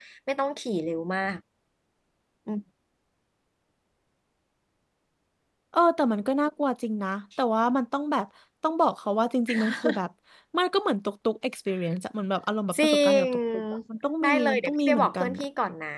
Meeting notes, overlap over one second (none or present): present